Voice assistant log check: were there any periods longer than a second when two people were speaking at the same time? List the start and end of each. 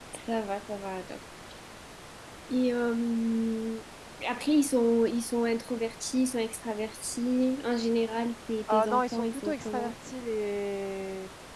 8.7-9.9

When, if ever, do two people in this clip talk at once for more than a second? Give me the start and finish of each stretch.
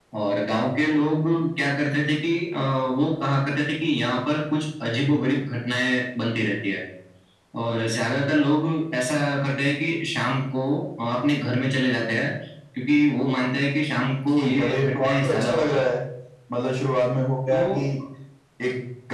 14.4-15.9

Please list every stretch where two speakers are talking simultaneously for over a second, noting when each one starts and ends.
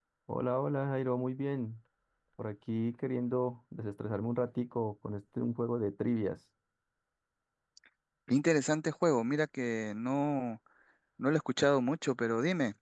none

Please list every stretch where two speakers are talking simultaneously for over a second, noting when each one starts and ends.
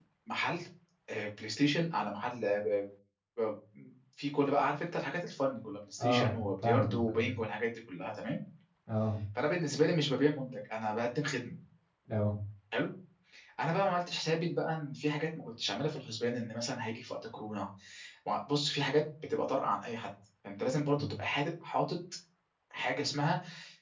6.0-7.3

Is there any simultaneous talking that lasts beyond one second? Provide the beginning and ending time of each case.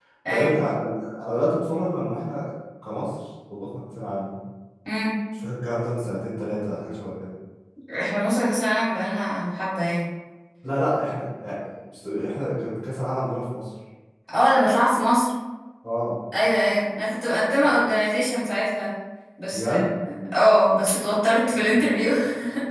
none

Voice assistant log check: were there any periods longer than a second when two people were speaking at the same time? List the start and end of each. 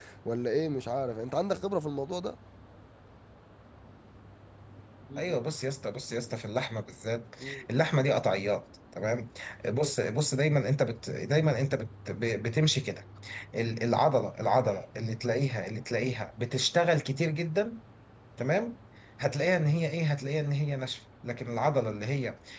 none

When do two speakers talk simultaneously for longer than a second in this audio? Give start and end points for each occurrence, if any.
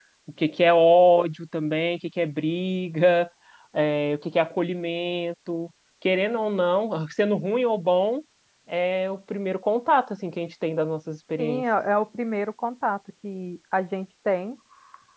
none

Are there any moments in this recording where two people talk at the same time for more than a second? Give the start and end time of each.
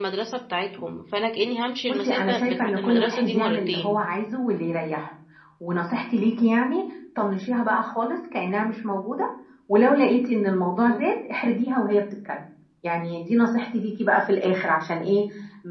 1.9-4.0

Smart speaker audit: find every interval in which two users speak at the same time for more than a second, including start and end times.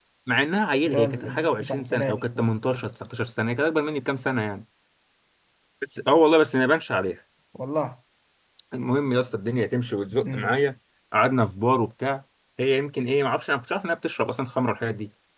0.8-2.4

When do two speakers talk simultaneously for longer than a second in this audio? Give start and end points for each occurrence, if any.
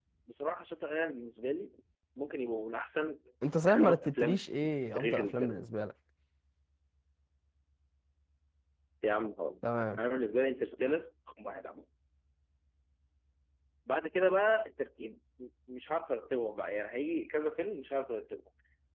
3.7-5.6

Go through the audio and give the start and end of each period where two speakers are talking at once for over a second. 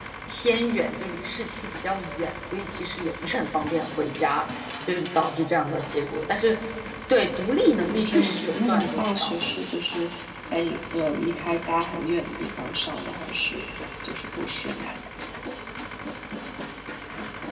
7.8-9.4

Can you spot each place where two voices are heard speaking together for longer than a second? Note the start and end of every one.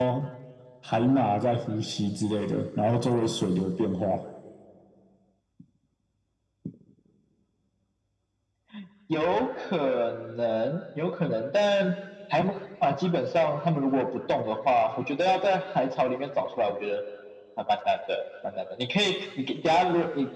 none

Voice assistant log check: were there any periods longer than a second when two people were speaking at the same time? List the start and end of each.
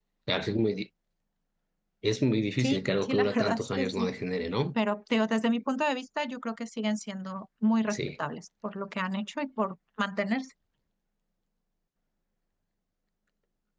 2.6-4.1

